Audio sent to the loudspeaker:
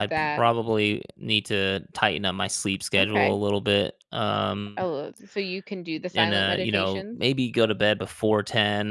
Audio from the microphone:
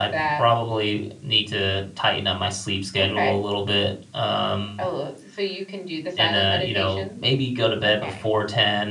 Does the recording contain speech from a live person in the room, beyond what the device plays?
Yes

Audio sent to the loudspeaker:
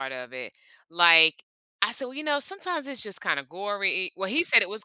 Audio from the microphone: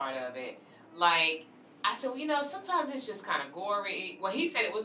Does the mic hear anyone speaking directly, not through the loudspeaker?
No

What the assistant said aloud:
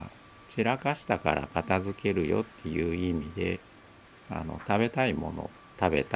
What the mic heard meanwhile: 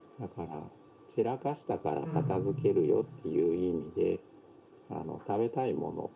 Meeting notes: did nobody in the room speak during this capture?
No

